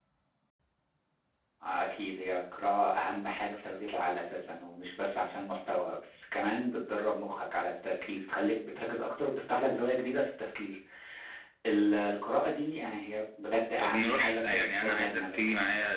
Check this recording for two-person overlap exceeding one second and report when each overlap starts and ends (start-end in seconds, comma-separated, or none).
13.8-15.4